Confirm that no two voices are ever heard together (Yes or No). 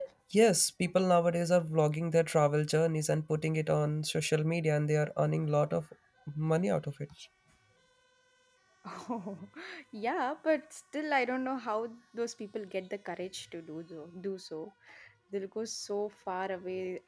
Yes